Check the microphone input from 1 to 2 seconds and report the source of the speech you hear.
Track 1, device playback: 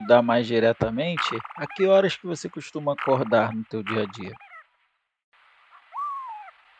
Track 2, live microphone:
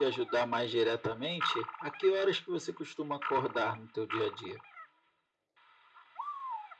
echo only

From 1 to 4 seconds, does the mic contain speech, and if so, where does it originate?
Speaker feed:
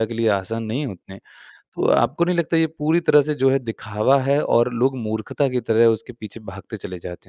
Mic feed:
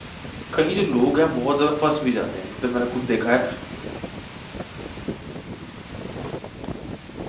user only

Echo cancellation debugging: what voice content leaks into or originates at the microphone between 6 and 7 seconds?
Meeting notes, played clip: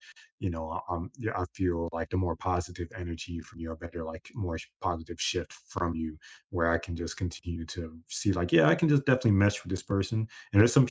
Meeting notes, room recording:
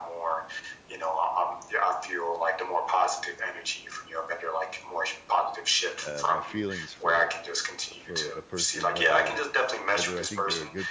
both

